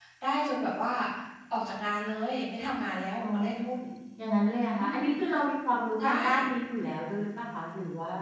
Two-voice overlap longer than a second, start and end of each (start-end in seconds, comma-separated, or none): none